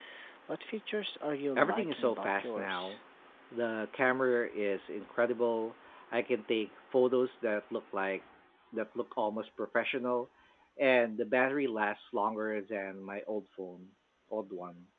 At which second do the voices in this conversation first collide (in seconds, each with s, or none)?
1.6 s